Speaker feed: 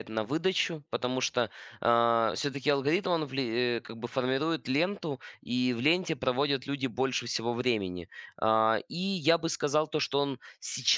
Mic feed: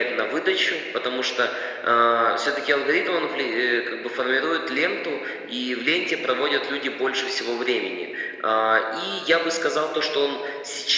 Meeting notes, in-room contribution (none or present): none